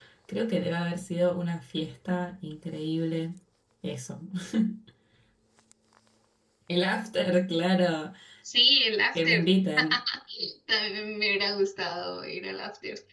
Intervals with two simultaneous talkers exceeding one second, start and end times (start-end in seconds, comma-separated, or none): none